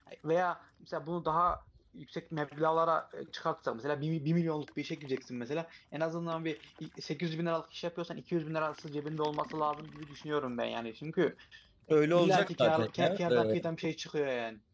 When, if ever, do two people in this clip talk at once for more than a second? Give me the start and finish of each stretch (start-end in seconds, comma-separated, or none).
12.2-13.6